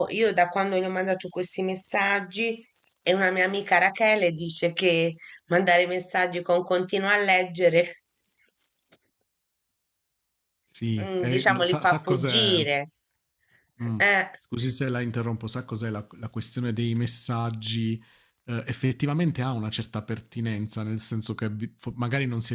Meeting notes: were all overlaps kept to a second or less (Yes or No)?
No